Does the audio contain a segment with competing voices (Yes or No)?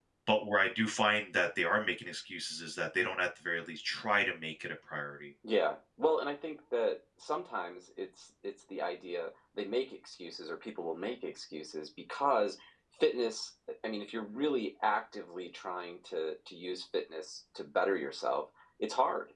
No